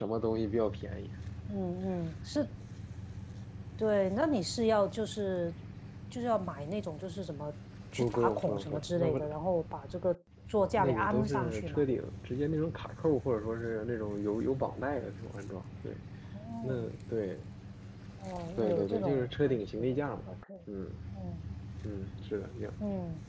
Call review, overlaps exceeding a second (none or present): present